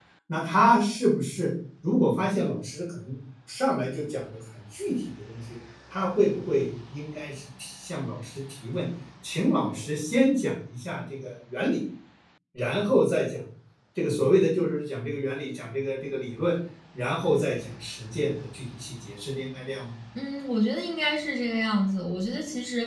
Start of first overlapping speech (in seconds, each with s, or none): none